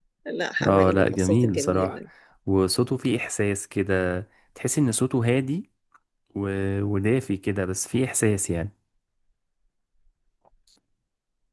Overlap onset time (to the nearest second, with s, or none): 1 s